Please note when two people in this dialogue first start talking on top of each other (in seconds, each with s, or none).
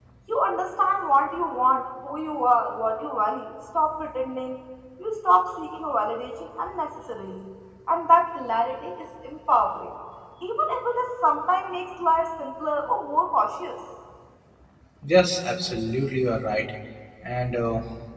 none